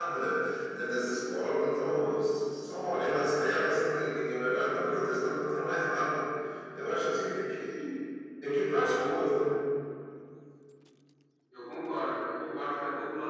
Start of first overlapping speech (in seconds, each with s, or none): none